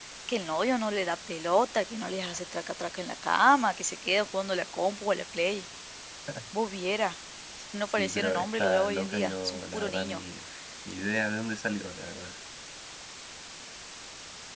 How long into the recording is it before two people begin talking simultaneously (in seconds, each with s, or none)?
7.9 s